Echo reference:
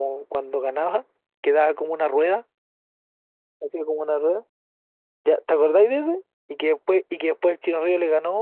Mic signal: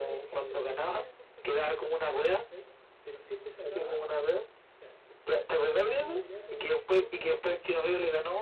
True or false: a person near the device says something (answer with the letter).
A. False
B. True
B